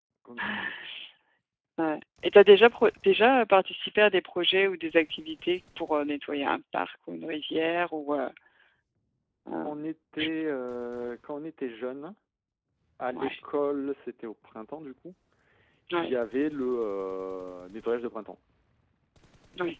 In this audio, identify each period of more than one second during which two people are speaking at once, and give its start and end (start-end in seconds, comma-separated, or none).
none